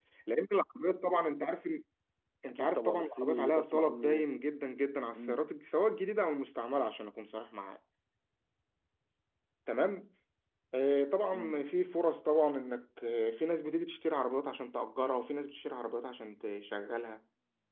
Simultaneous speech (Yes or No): Yes